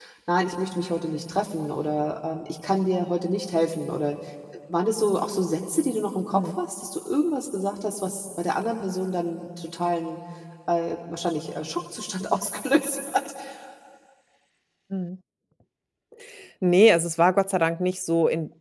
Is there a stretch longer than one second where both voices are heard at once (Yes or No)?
No